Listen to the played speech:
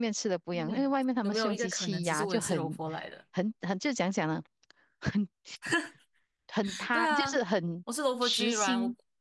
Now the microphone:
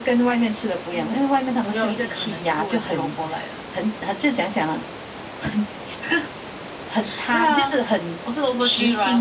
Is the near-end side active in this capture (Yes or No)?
No